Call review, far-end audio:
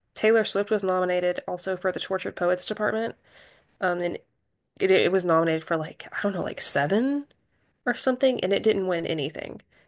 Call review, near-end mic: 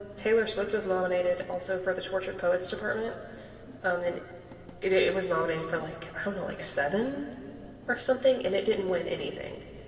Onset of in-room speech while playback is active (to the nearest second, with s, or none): none